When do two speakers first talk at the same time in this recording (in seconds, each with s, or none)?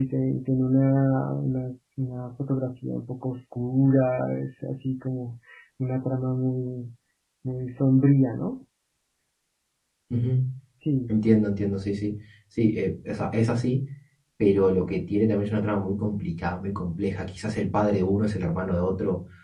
none